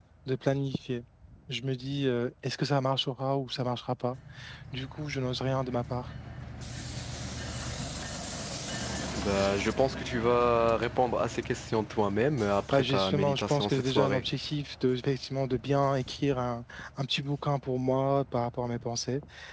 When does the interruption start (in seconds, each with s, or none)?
12.7 s